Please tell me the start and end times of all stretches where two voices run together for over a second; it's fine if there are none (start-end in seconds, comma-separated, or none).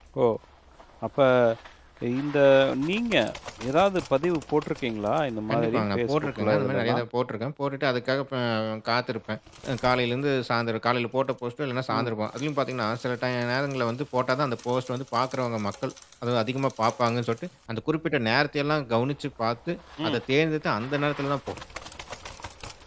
5.5-7.0